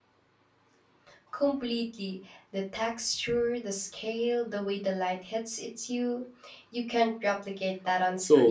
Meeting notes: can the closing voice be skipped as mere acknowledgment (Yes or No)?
No